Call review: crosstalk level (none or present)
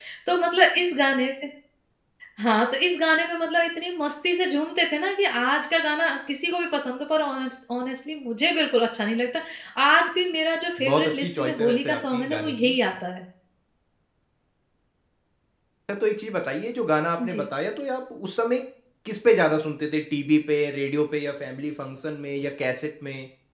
present